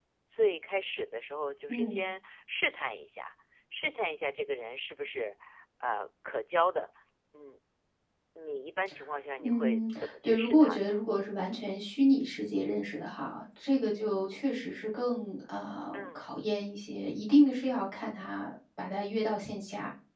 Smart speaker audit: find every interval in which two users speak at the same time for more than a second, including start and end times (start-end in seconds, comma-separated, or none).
9.4-10.9